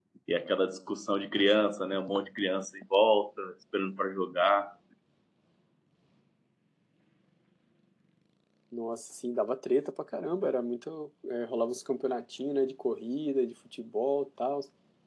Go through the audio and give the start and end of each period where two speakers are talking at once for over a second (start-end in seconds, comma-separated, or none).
none